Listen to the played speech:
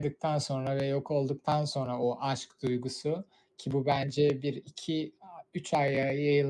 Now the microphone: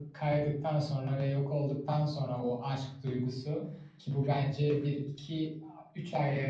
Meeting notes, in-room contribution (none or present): none